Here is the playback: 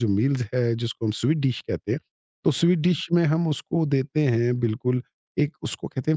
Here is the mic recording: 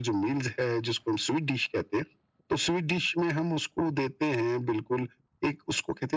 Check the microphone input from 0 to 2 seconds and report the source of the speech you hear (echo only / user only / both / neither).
echo only